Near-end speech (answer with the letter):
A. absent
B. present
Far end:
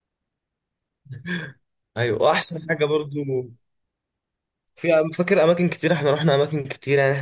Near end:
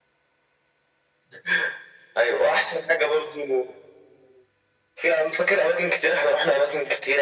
A